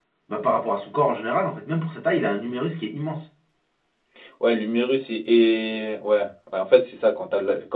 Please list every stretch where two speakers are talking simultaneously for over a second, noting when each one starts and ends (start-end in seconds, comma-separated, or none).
none